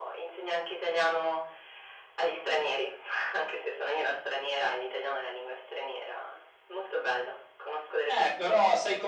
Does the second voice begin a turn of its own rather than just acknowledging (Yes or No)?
Yes